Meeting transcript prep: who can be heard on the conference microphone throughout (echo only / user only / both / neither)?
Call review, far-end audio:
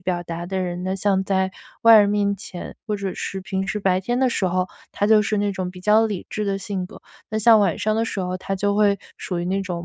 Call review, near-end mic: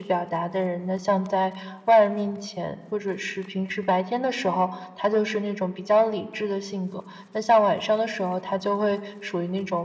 echo only